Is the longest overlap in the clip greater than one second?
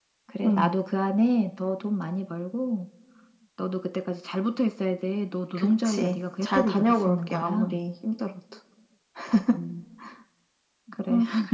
Yes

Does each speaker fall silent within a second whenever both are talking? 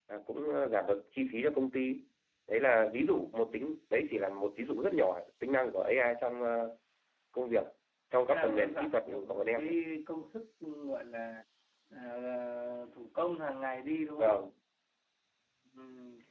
No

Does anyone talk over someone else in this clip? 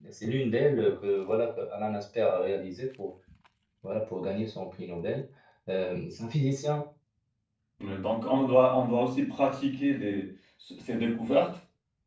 No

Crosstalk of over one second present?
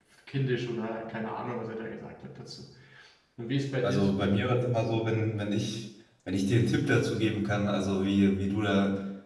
No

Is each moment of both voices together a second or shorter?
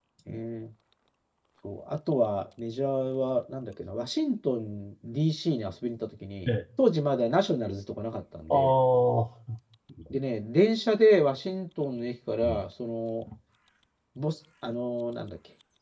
Yes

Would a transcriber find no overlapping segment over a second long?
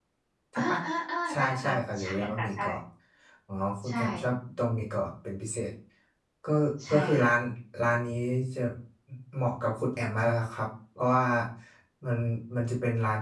No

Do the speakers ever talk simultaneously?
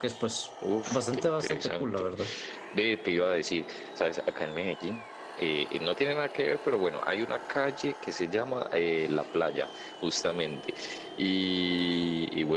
Yes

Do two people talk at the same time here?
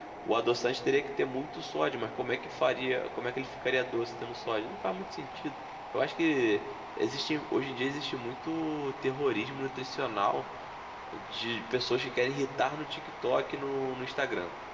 No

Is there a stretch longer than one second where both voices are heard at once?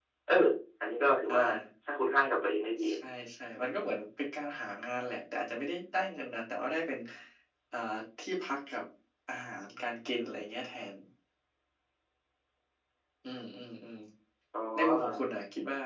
No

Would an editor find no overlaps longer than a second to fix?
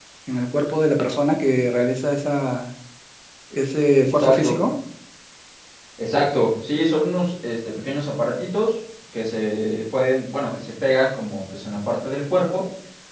Yes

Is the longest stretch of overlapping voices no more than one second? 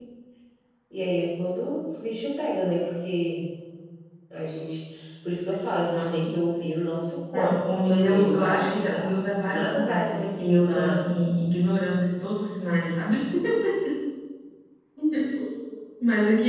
No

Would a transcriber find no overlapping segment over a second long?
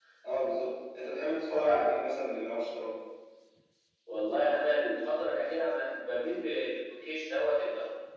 Yes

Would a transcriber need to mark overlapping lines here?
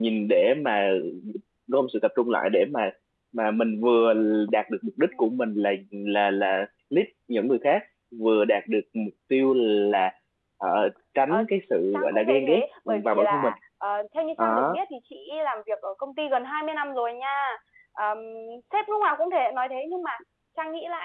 Yes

